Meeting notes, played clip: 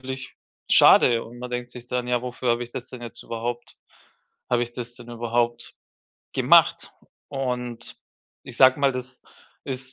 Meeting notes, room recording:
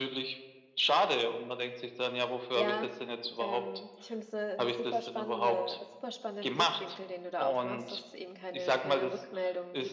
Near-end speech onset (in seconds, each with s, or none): 2.5 s